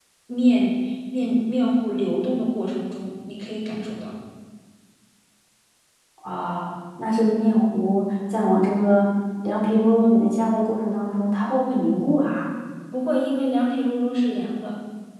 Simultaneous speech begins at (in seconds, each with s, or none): none